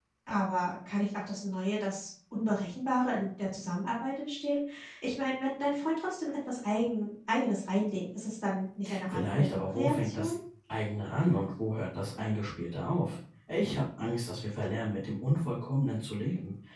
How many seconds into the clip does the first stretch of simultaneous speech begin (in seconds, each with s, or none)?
8.8 s